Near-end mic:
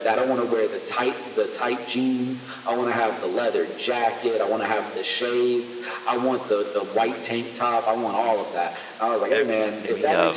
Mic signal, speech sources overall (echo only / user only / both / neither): both